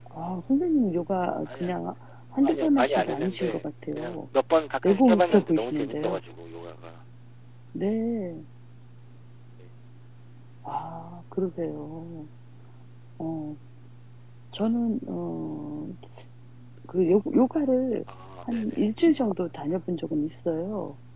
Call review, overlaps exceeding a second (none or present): present